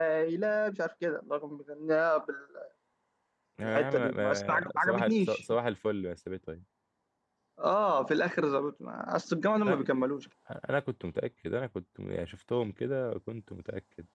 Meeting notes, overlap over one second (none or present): present